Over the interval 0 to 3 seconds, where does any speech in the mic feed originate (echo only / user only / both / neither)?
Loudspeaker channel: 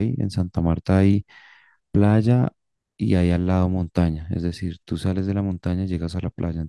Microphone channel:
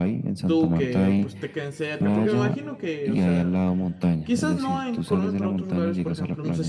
both